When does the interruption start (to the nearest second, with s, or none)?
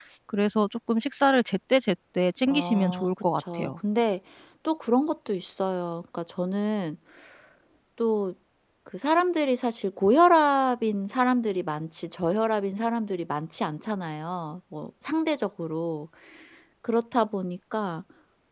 2 s